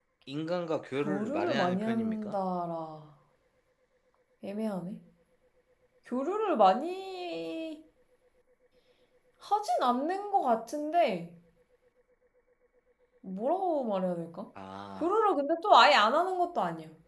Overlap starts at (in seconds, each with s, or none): 0.9 s